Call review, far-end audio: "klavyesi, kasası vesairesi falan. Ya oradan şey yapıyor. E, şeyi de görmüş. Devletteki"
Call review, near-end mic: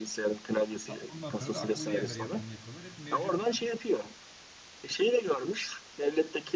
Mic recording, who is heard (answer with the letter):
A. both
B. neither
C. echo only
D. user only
A